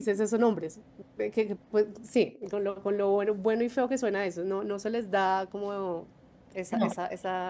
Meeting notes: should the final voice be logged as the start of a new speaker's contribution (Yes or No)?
No